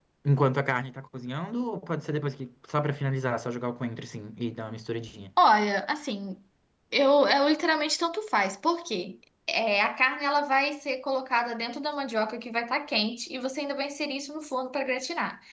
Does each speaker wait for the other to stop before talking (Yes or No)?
Yes